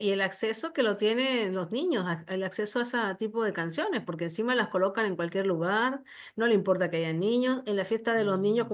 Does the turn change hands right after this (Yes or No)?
No